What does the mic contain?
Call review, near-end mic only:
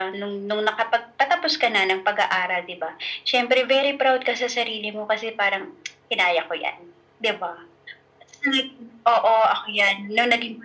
echo only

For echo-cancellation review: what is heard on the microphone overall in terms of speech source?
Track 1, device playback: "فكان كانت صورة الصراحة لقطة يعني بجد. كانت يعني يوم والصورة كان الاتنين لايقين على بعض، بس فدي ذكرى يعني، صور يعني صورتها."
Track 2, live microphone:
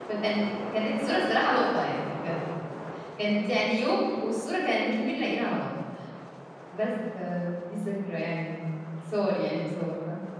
echo only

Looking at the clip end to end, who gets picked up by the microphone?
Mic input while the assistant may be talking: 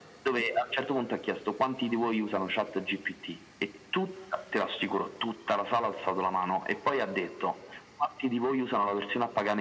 echo only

